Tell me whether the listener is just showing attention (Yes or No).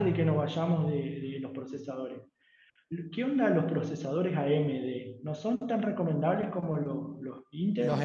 No